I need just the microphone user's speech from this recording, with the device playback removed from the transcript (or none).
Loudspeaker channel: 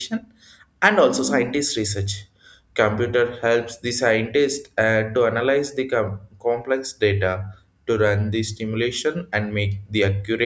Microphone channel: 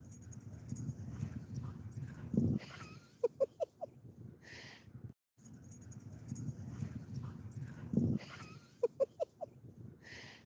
none